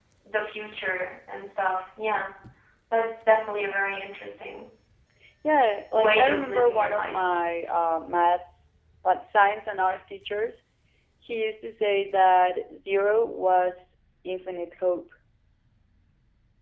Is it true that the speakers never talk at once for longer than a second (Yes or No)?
No